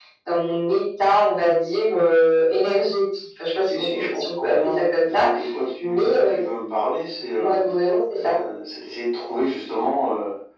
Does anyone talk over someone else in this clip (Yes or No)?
Yes